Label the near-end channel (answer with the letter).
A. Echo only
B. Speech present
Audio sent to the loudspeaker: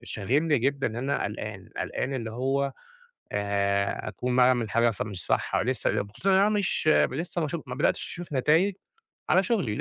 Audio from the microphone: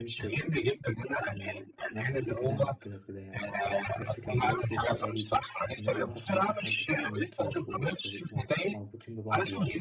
B